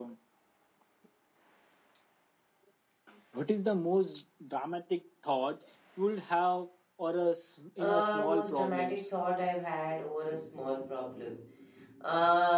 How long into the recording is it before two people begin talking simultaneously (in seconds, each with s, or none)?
7.8 s